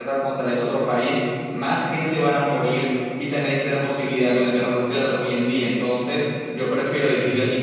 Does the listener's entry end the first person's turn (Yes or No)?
No